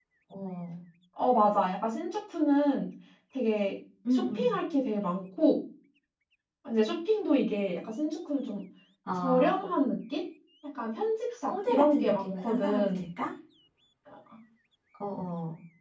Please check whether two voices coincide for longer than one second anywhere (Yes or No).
Yes